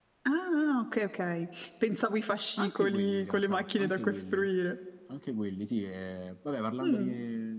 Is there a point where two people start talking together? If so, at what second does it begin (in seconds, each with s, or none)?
2.6 s